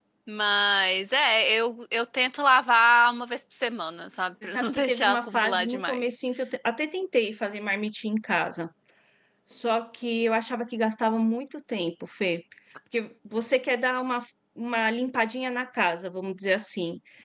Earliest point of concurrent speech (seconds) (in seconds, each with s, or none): 4.4 s